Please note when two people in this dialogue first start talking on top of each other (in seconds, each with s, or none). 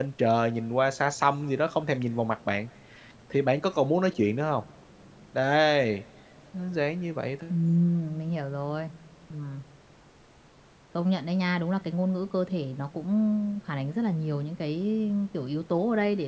none